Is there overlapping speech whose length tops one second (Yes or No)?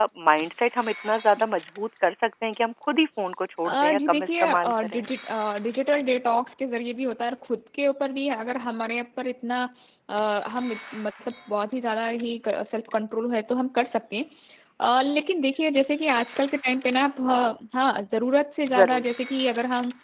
Yes